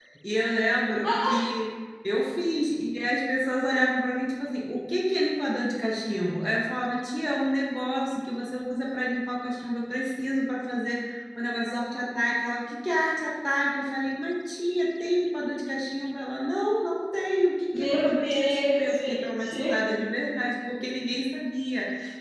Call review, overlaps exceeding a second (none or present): present